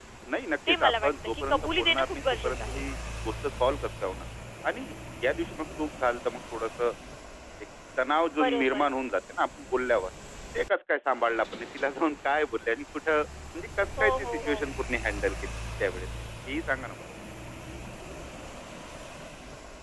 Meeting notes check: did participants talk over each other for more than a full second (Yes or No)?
Yes